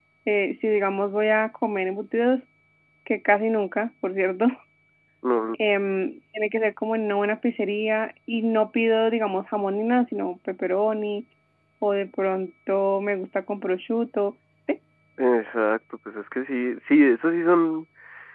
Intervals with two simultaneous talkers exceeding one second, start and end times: none

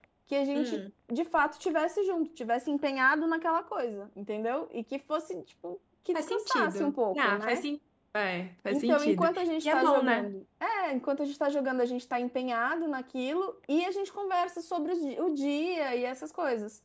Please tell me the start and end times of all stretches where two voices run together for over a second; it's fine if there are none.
6.1-7.6, 8.7-10.3

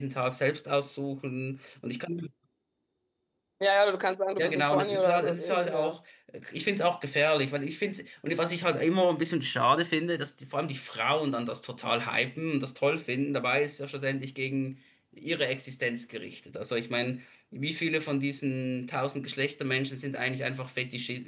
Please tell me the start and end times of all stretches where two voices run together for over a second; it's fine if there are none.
4.4-6.0

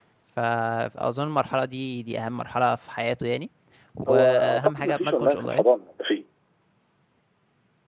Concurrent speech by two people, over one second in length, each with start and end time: 4.1-5.6

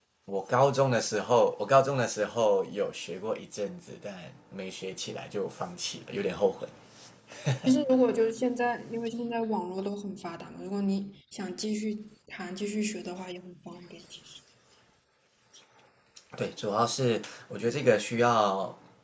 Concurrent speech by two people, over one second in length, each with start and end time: none

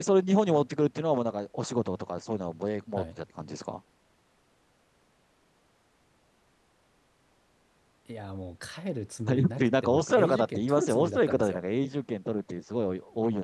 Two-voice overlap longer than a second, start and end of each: 9.3-11.6

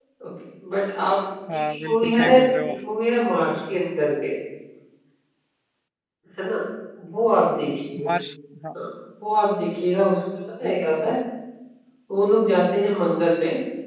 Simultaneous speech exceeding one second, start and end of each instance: 1.5-2.7

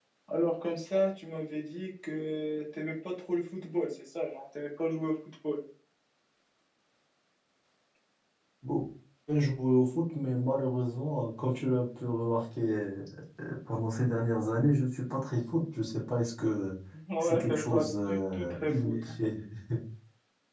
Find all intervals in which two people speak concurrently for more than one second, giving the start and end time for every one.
17.2-19.1

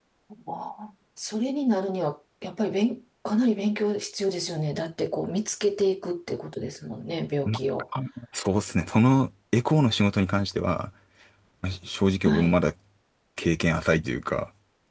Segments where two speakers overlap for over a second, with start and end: none

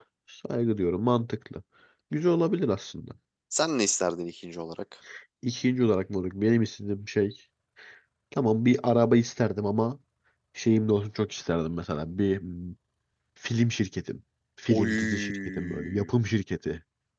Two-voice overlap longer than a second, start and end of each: 14.7-16.1

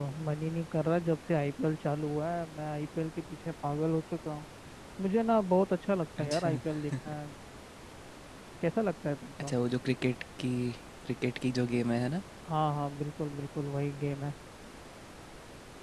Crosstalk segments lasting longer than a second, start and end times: none

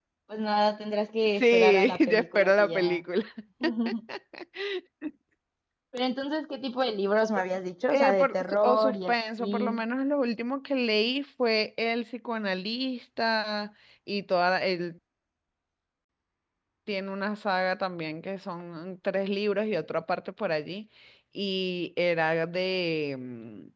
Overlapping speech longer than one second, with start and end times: 1.4-3.0, 7.9-9.8

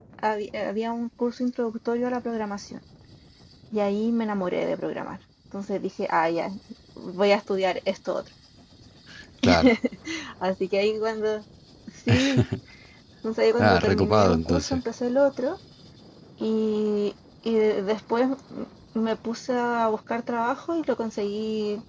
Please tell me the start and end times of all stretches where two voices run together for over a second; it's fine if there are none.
13.6-14.8

